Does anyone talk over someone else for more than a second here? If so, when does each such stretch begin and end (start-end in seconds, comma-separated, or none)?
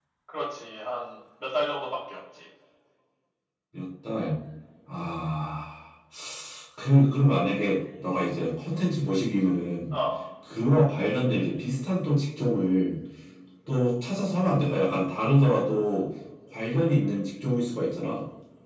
none